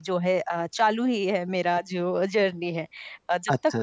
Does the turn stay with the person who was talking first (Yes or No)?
No